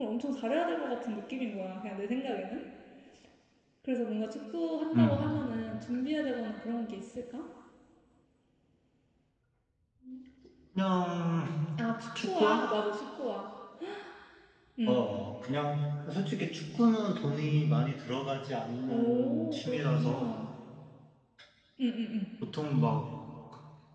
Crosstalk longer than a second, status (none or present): present